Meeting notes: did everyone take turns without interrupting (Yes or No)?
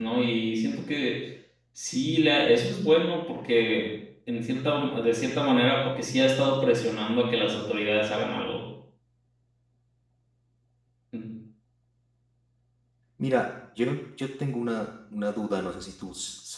Yes